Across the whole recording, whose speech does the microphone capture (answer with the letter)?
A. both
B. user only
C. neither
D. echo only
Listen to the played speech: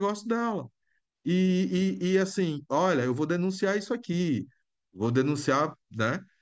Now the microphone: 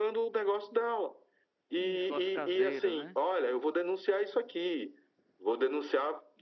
A